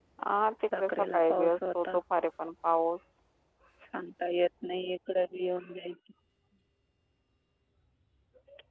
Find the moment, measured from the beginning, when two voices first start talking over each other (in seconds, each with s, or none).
0.6 s